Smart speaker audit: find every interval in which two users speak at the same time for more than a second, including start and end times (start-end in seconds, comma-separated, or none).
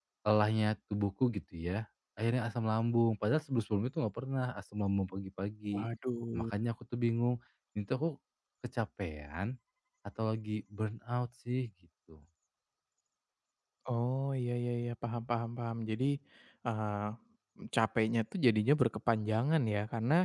none